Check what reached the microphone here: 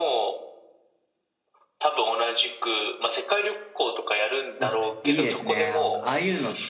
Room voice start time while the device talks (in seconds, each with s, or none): 4.6 s